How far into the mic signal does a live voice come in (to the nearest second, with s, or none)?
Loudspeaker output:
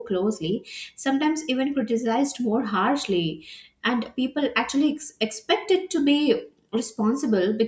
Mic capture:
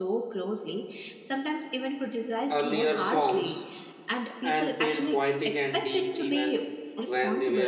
3 s